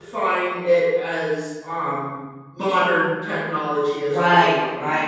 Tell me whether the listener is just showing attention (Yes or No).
No